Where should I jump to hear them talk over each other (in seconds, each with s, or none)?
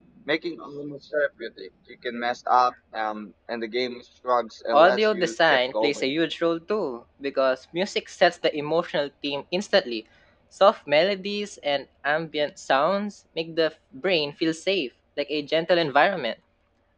4.7 s